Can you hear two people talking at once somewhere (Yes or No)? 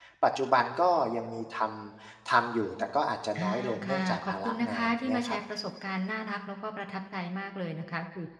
Yes